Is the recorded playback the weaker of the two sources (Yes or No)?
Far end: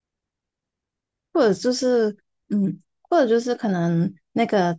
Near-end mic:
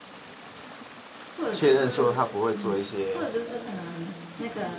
Yes